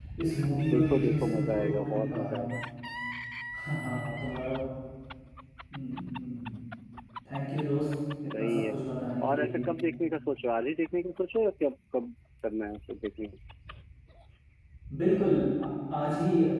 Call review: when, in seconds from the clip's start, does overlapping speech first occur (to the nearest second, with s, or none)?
1 s